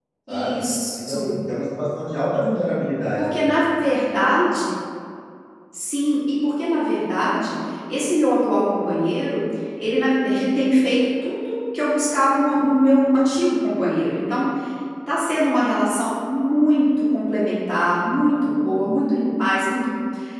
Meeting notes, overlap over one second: none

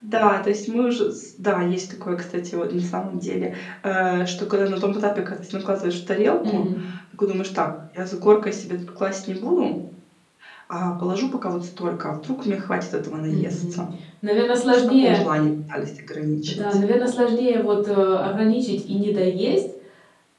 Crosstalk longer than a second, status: none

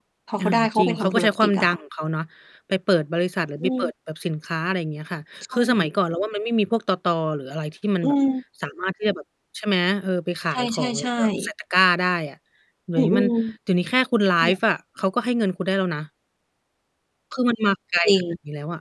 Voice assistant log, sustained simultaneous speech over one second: present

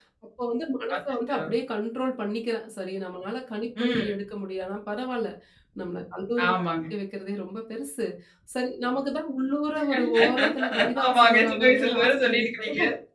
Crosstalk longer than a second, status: present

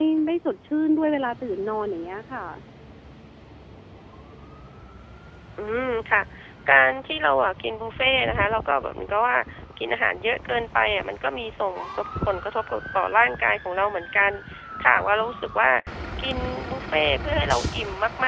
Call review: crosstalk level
none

